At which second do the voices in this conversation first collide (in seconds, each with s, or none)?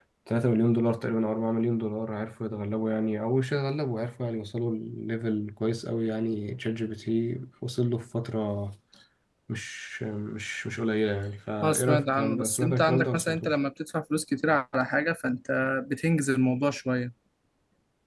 11.6 s